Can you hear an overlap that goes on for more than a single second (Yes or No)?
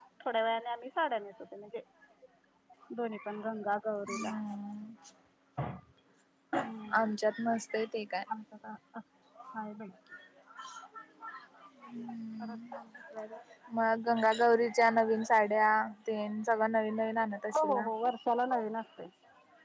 No